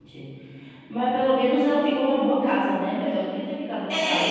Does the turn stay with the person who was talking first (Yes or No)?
No